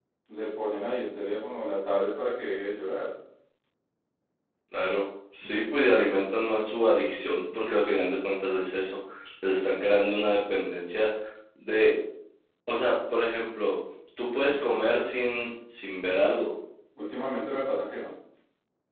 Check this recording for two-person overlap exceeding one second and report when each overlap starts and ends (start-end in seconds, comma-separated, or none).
none